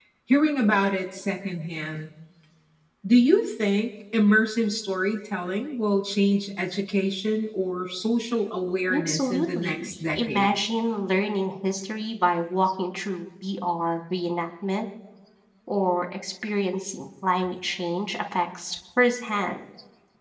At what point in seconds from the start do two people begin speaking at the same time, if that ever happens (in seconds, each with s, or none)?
8.9 s